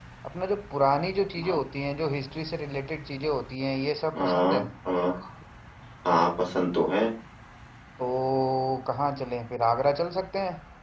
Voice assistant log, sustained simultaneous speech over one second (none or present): none